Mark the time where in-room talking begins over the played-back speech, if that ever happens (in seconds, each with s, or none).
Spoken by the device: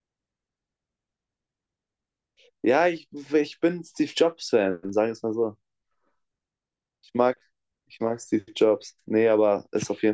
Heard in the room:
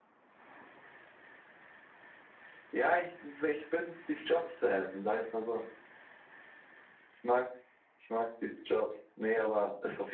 none